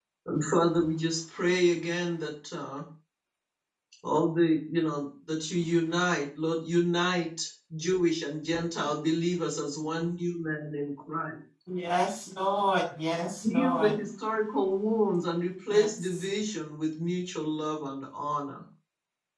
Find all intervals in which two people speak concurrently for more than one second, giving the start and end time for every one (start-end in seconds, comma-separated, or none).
none